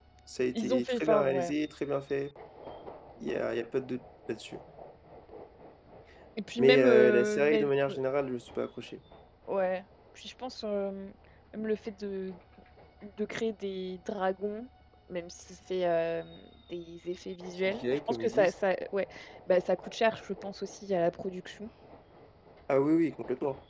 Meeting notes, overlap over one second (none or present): present